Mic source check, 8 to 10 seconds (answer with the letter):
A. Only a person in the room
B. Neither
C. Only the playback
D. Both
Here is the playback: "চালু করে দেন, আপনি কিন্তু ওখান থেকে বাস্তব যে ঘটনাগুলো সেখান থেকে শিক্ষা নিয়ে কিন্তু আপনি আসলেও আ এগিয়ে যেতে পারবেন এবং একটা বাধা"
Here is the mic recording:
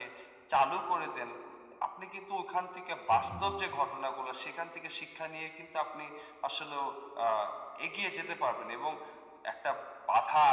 C